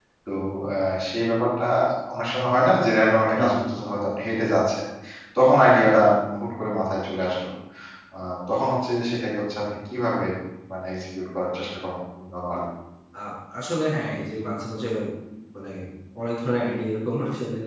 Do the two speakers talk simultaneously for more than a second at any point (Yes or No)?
No